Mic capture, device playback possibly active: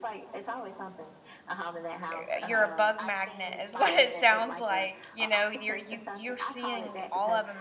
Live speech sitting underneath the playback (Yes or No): No